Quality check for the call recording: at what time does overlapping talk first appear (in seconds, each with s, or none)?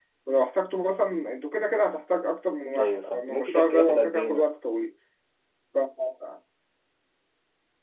2.8 s